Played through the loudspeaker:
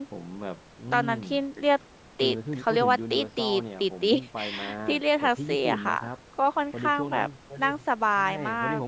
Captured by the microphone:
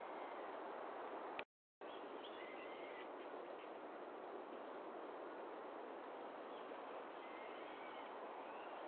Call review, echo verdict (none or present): none